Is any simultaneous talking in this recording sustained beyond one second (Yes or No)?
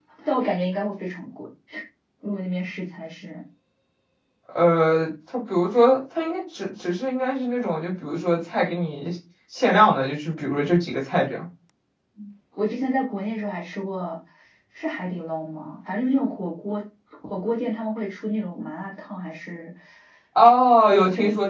No